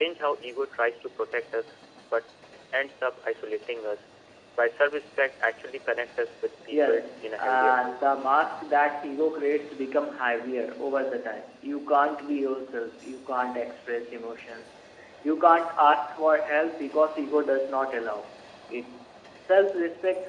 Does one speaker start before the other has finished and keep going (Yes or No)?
Yes